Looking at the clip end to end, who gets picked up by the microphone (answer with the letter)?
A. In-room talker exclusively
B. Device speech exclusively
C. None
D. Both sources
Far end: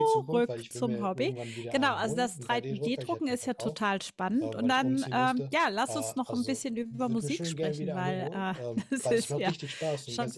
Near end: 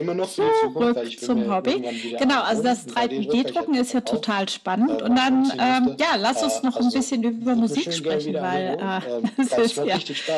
B